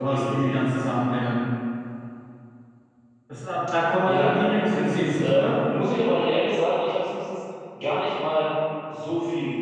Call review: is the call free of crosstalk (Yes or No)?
No